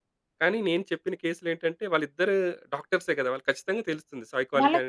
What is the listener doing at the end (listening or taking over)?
taking over